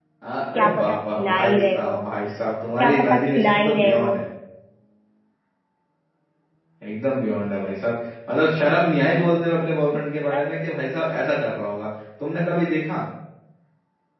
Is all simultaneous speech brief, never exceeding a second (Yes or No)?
No